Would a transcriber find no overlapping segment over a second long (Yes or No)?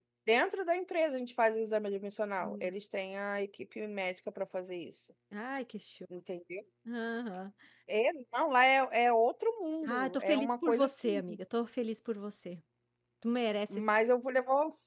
No